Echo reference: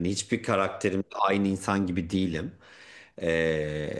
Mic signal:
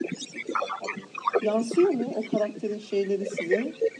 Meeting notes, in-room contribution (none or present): present